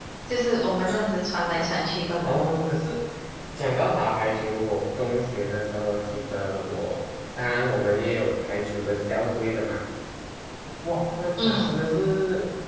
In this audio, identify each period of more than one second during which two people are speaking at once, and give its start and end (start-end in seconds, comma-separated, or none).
none